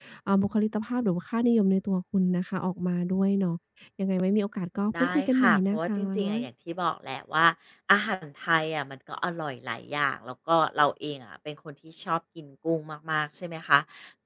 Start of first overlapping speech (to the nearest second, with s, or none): 5 s